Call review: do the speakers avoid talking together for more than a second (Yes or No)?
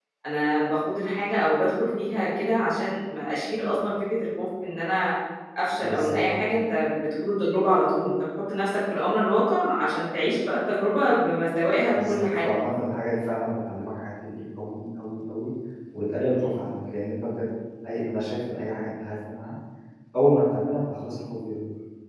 Yes